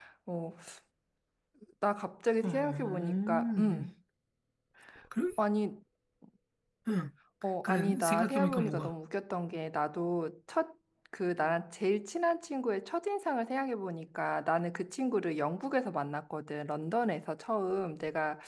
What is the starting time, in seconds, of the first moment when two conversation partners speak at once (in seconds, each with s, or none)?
2.4 s